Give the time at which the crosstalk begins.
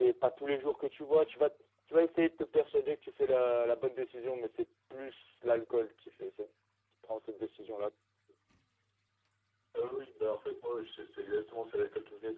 none

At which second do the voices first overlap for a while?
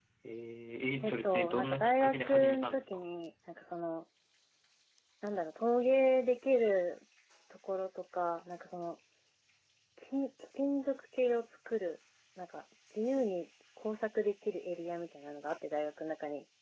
1.0 s

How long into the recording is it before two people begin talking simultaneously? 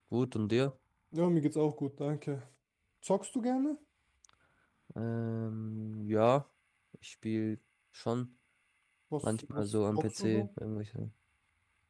9.2 s

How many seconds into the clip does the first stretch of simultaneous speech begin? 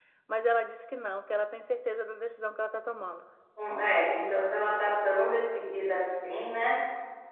none

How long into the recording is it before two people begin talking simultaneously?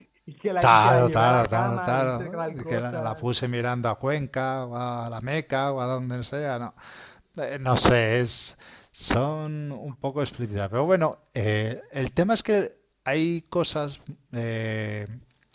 0.6 s

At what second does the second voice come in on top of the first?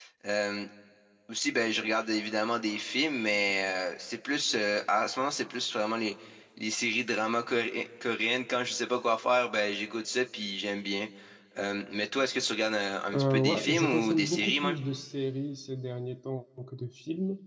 13.1 s

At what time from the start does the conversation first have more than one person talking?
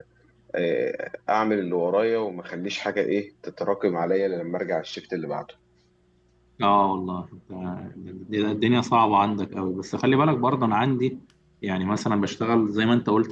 none

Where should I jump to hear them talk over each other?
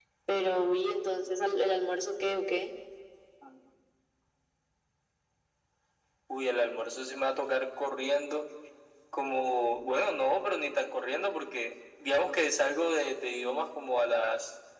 none

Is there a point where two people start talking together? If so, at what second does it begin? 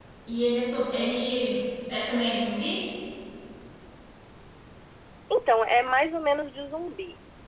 none

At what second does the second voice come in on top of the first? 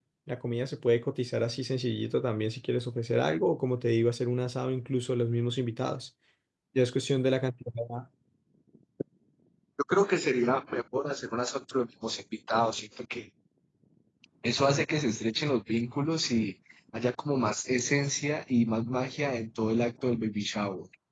none

